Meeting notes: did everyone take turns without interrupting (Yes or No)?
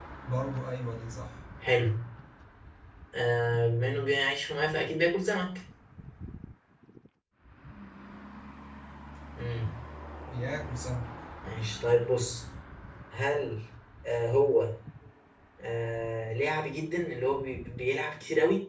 Yes